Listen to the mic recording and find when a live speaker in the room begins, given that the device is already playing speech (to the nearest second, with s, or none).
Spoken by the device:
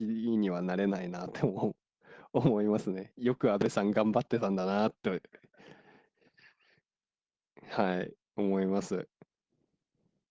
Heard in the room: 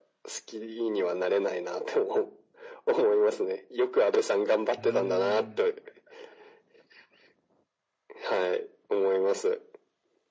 5 s